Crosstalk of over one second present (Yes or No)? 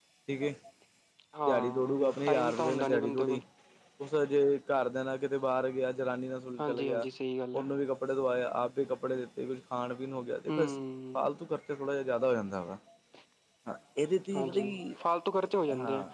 Yes